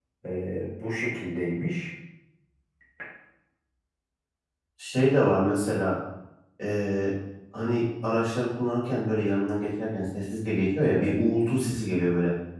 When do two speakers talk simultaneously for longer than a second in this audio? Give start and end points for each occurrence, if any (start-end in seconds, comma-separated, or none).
none